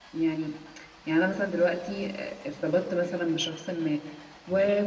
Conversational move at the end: listening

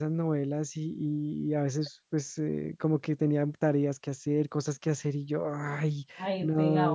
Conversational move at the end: listening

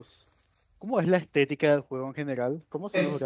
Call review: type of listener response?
taking over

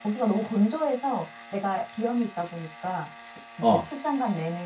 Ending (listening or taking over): listening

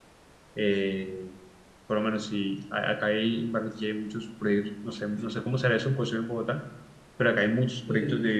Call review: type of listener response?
listening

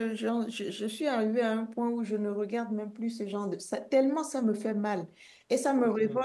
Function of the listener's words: listening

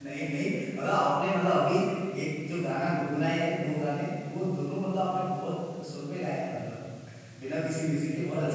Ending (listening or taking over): taking over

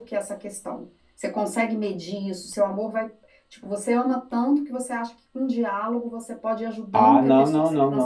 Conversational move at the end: taking over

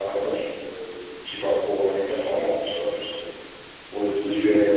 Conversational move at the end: taking over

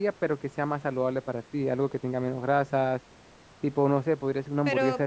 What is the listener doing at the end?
taking over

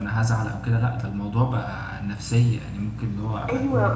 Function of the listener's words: taking over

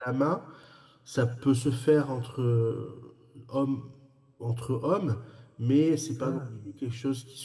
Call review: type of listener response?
listening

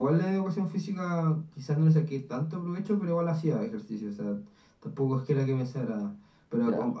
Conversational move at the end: listening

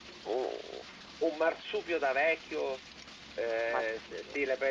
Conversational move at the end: listening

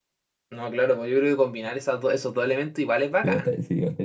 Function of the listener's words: taking over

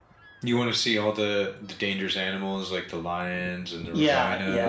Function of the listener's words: taking over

